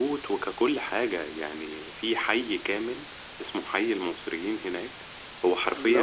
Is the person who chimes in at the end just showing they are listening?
Yes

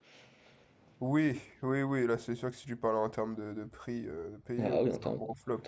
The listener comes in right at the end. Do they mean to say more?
Yes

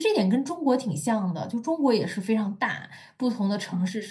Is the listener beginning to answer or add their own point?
No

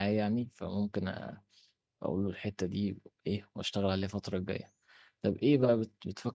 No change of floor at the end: Yes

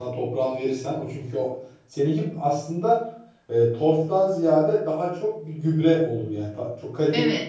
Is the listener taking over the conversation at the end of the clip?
Yes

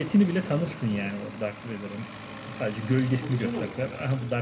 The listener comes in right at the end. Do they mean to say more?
No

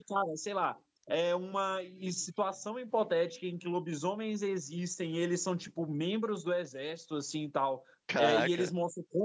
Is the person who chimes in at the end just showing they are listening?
Yes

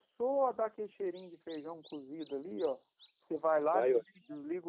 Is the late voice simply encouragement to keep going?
Yes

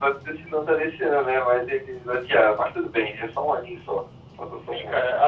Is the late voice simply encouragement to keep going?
No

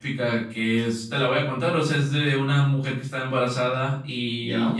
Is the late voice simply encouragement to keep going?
Yes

